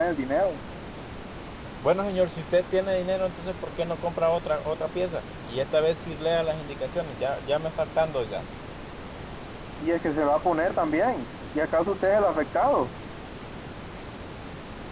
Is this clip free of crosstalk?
Yes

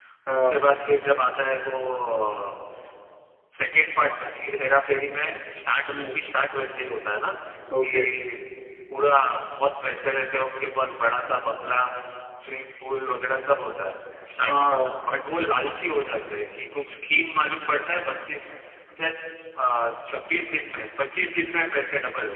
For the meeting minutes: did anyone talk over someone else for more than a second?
No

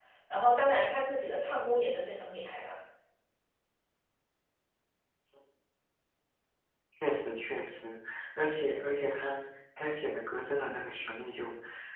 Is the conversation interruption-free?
Yes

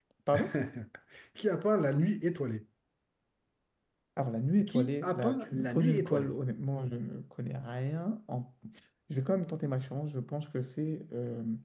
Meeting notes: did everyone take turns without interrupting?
No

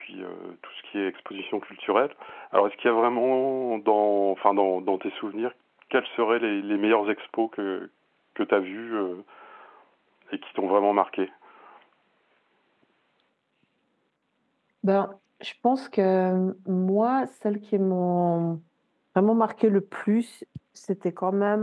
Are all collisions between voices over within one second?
Yes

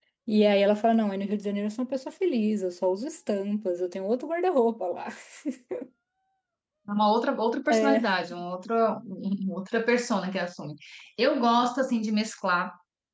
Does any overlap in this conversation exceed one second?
No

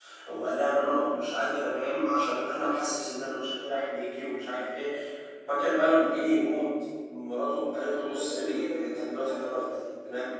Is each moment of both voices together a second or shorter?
No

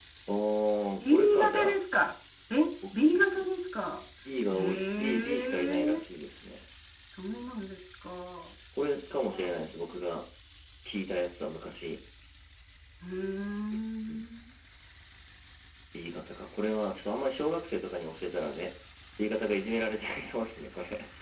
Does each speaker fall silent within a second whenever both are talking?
No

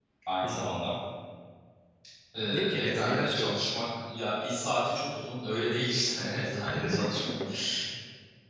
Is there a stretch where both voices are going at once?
Yes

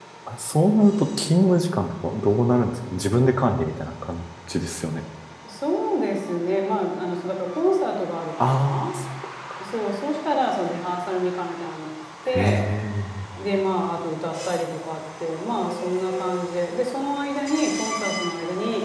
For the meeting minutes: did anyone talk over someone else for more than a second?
No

